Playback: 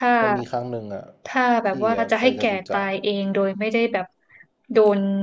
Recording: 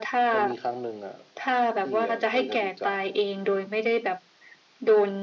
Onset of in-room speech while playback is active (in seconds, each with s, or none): none